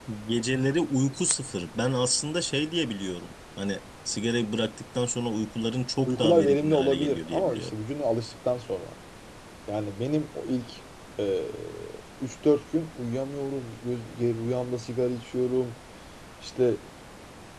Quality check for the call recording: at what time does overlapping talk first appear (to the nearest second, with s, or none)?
6 s